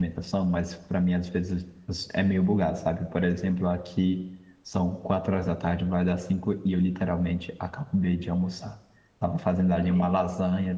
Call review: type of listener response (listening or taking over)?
listening